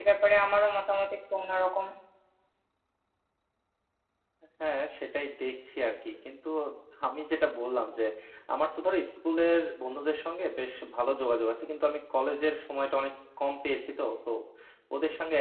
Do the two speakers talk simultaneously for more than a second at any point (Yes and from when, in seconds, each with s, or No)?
No